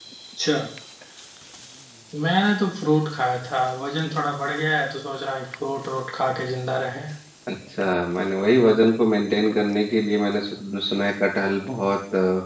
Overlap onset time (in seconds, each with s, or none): none